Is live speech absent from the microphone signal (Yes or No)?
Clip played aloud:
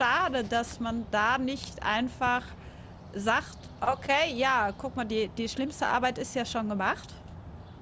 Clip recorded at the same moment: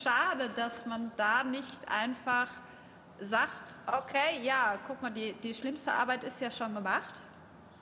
Yes